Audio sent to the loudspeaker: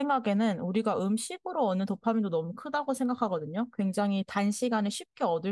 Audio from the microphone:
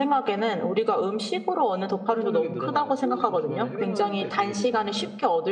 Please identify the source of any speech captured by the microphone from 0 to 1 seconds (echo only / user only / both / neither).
echo only